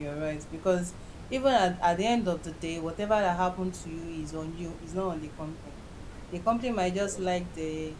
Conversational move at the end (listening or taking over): listening